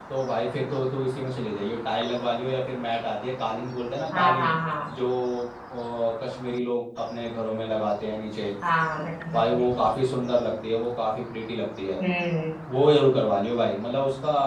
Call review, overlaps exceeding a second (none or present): none